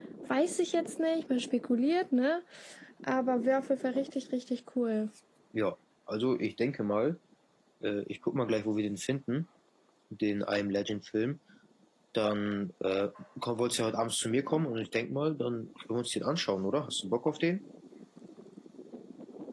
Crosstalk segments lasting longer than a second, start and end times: none

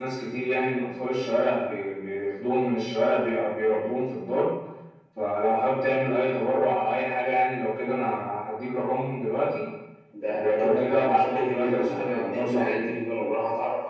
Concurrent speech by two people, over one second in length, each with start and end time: 10.3-12.9

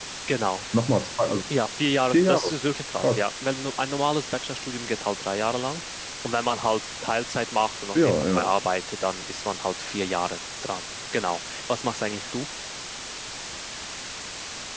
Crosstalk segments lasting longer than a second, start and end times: none

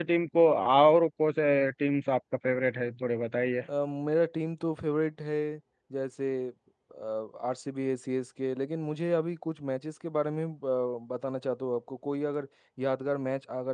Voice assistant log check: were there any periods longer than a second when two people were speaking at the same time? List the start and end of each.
none

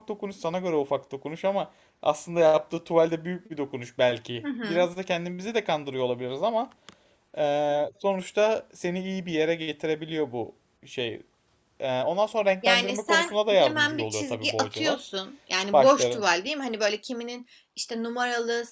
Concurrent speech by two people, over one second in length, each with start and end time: 12.6-15.0

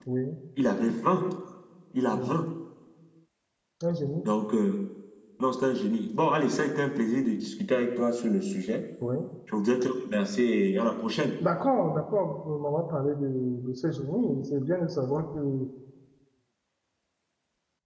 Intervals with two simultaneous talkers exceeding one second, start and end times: none

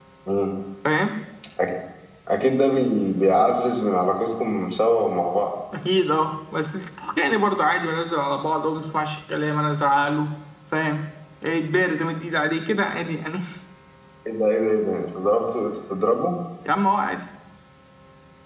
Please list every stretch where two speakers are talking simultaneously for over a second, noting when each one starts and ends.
none

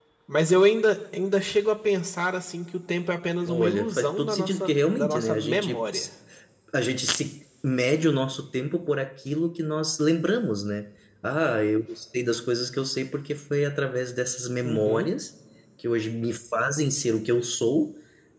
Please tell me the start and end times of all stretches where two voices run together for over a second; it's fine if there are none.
3.5-5.8

